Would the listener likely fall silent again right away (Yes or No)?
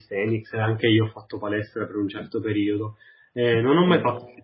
Yes